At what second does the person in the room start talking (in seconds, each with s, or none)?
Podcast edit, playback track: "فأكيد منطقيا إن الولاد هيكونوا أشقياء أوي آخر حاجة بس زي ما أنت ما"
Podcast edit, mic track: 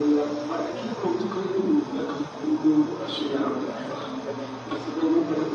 none